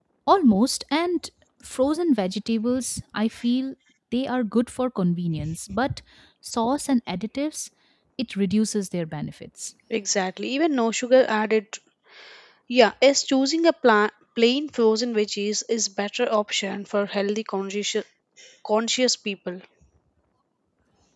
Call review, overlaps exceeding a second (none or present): none